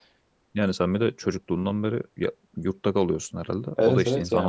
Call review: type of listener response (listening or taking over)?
taking over